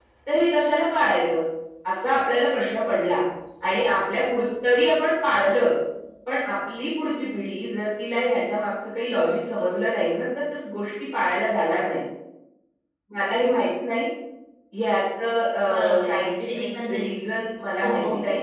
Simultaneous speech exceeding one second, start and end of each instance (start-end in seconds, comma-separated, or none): 15.7-17.1